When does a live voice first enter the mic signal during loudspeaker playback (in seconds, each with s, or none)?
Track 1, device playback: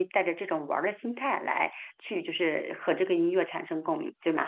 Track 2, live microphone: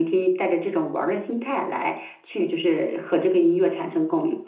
none